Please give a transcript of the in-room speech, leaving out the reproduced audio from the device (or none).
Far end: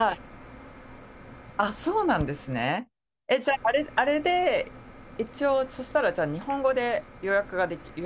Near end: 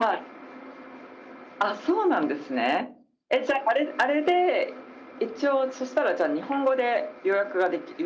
none